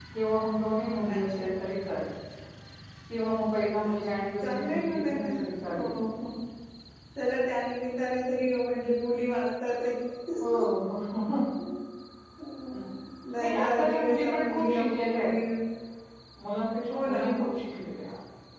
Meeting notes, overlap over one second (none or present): present